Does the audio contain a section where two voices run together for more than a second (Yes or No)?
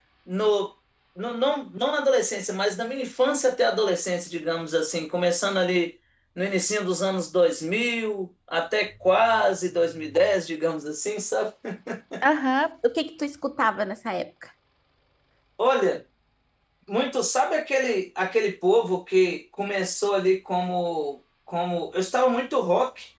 No